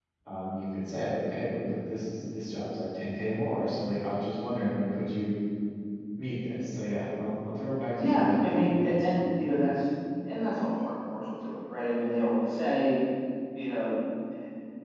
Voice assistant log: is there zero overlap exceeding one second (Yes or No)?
No